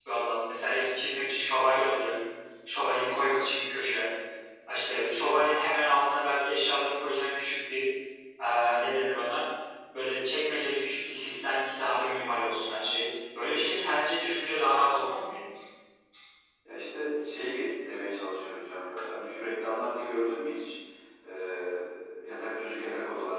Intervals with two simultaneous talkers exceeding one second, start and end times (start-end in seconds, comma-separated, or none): none